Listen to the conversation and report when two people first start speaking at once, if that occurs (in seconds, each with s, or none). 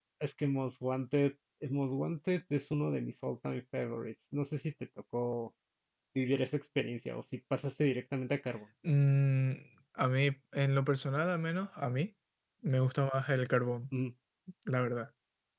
none